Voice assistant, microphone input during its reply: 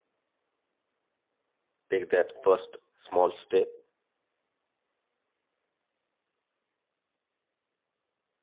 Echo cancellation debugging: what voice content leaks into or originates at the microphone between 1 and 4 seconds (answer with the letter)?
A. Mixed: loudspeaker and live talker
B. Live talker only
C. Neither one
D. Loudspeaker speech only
B